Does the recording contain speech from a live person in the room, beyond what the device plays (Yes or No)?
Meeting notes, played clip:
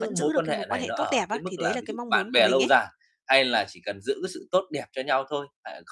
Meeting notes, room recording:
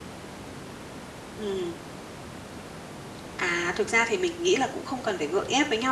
Yes